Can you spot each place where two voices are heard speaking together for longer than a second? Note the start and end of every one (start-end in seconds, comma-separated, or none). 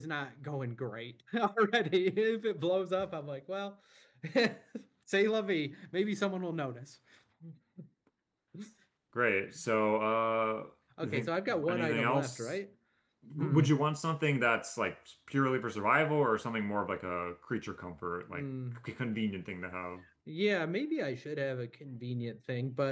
11.0-12.5